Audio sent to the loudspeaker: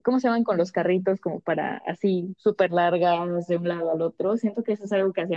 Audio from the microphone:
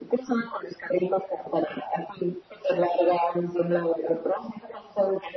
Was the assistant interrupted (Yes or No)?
No